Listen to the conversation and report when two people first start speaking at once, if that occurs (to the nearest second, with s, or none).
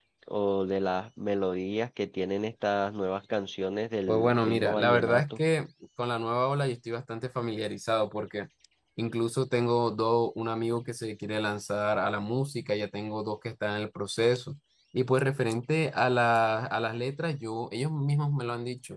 4 s